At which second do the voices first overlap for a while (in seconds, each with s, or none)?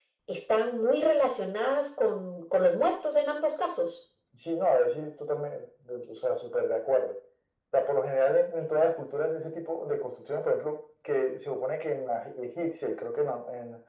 none